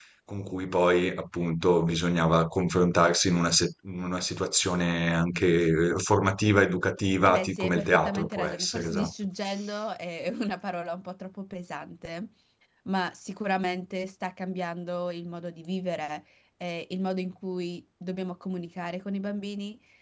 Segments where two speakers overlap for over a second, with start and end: 7.2-9.1

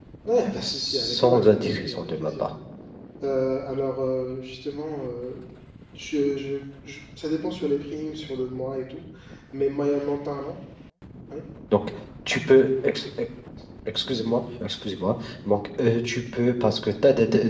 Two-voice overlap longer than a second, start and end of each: 0.6-2.5

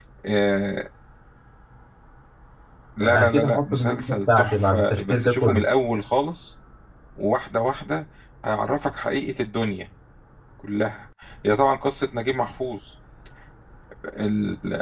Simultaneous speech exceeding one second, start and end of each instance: 3.0-5.6

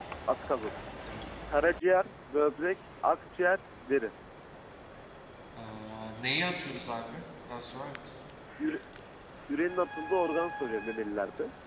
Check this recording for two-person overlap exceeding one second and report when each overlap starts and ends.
none

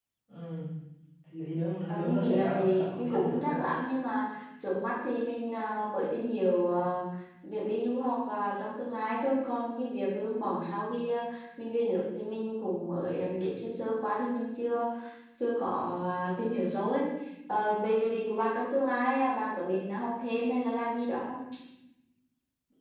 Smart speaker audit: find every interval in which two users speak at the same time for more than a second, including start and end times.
1.9-3.6

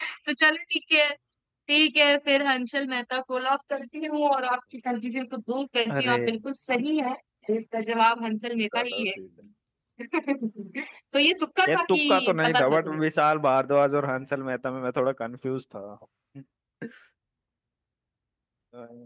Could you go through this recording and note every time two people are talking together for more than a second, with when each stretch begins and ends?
11.7-13.0

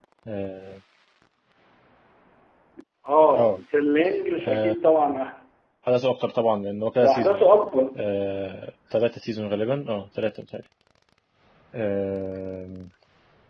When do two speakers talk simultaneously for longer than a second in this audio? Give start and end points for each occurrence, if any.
none

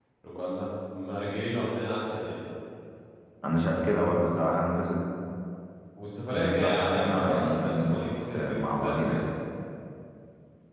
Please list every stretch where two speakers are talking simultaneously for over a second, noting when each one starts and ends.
6.3-9.2

